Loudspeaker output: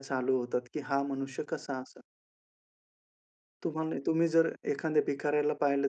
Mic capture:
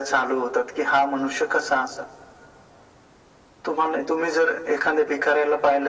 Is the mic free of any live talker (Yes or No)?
Yes